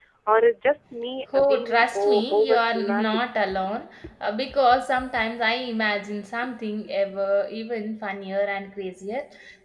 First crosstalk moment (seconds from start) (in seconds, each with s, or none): 1.3 s